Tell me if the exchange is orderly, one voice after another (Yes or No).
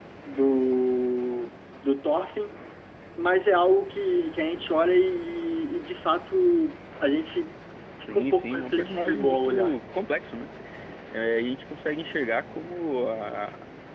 No